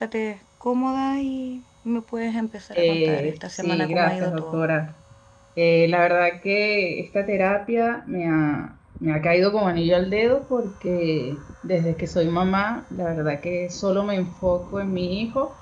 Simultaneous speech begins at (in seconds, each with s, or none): 2.7 s